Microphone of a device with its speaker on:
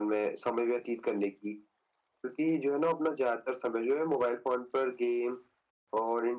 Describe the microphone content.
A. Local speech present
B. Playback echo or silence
B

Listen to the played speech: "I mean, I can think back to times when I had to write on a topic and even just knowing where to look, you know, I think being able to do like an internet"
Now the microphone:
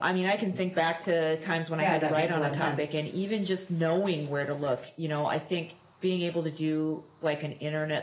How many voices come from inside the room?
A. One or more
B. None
A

